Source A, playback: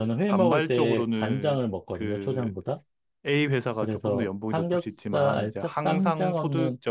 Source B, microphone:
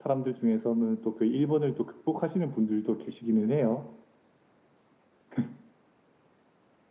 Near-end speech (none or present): present